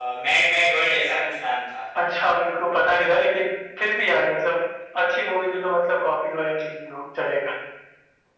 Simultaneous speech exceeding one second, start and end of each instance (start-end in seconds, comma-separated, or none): none